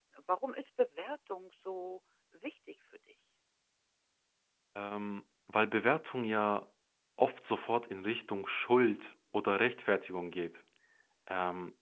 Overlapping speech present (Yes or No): No